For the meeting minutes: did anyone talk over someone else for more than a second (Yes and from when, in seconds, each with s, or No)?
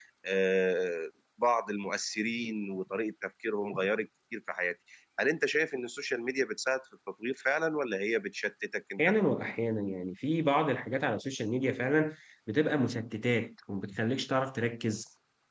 No